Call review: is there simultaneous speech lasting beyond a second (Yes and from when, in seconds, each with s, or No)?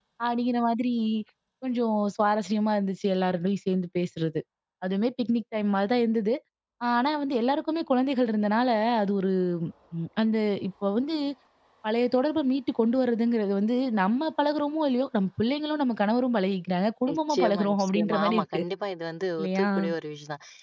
Yes, from 17.1 s